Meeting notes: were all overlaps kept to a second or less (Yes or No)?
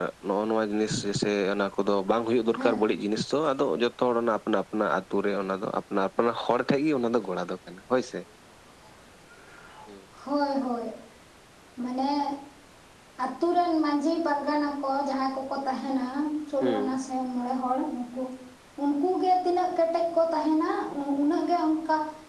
Yes